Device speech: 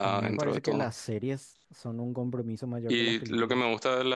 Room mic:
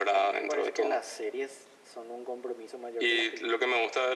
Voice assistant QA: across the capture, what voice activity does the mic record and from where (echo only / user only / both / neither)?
echo only